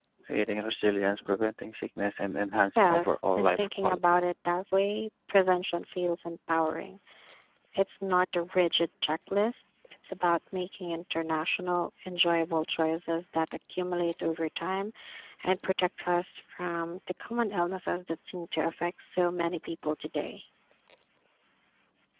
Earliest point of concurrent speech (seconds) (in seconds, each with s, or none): 2.6 s